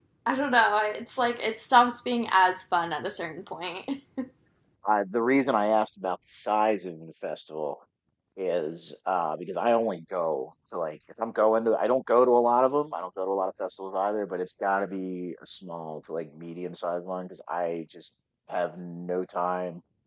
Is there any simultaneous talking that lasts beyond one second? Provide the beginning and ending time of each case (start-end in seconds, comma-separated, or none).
none